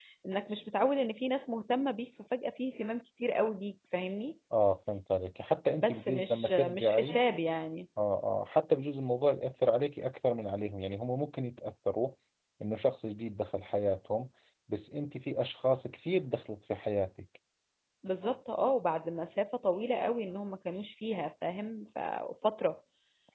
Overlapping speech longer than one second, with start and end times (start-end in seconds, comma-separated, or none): 5.8-7.2